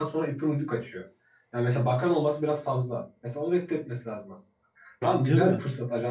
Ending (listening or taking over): listening